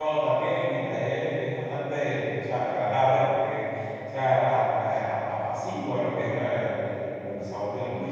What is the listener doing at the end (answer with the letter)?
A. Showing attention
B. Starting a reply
A